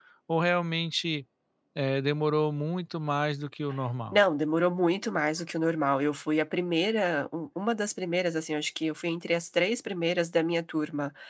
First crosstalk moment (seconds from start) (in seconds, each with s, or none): none